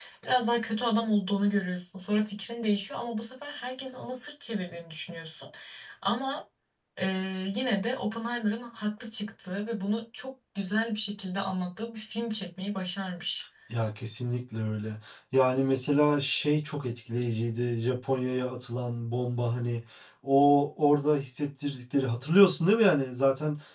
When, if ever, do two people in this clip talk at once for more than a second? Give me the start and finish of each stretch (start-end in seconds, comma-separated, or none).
none